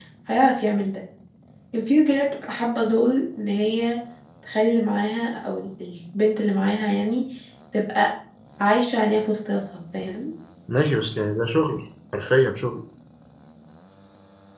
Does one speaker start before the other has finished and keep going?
No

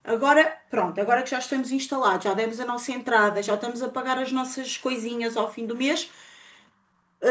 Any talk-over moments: No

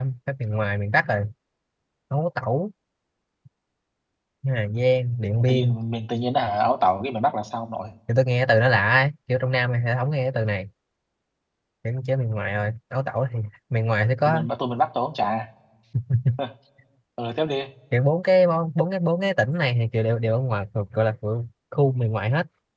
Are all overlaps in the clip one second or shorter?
Yes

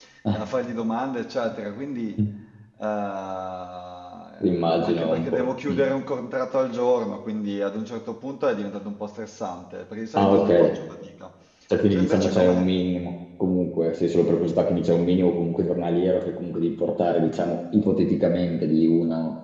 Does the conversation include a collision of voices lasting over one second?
Yes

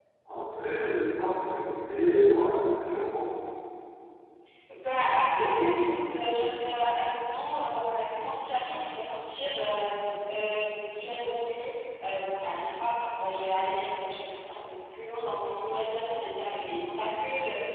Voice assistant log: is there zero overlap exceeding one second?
Yes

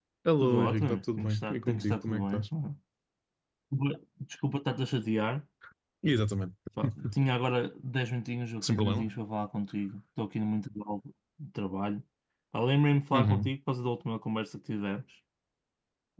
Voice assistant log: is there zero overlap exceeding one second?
No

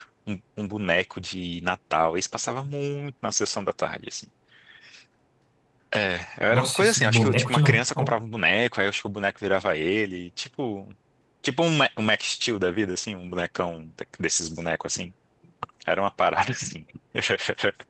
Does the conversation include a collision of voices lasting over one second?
Yes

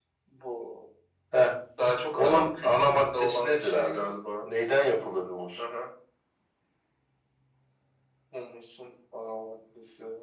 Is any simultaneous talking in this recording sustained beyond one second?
Yes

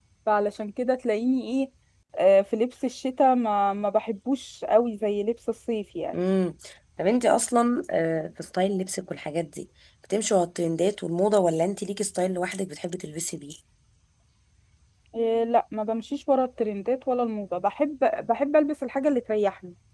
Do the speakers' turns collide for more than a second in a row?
No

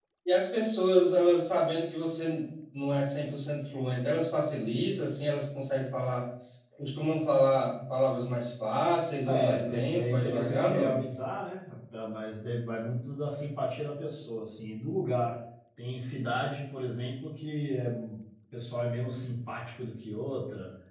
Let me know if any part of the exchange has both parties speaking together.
Yes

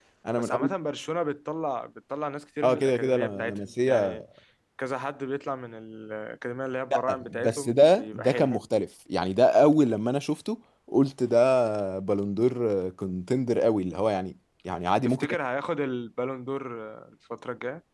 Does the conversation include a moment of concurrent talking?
Yes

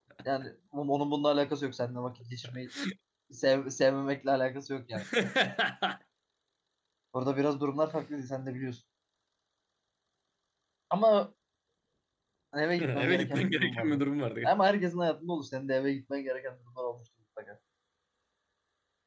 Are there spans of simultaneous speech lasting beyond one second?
Yes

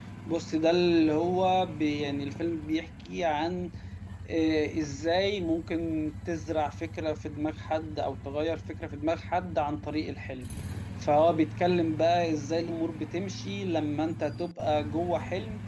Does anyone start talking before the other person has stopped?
No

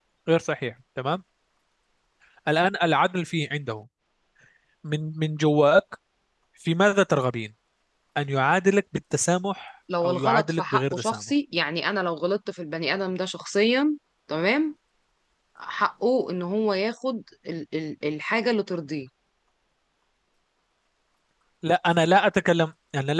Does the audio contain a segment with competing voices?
Yes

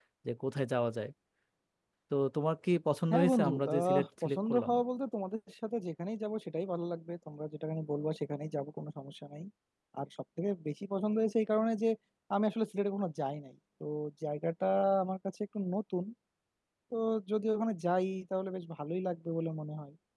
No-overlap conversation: No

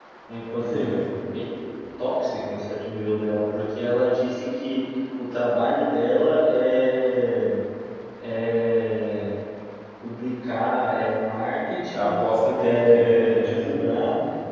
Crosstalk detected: Yes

